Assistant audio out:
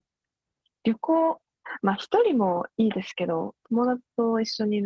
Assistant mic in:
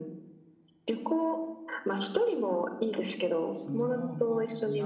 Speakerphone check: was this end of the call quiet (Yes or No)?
No